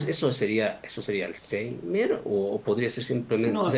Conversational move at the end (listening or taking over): listening